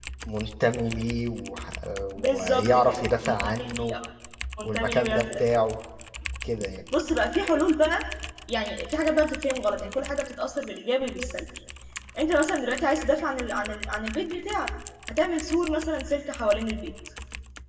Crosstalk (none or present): present